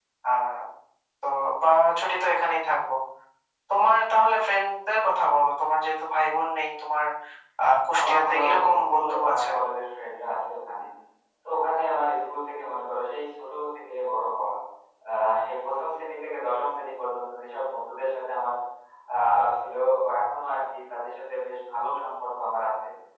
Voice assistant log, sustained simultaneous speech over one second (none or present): present